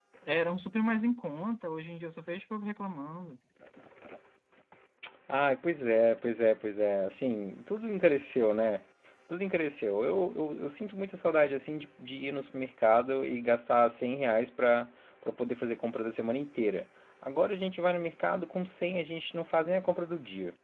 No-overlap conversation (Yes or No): Yes